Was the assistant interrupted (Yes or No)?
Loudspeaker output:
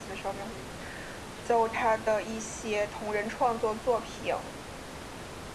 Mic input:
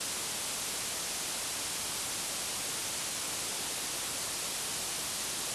No